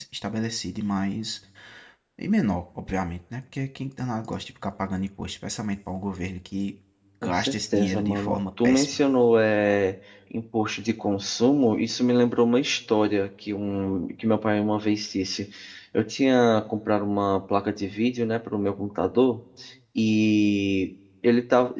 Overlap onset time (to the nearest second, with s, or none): 7 s